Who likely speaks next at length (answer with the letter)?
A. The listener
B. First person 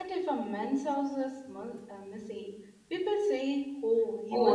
A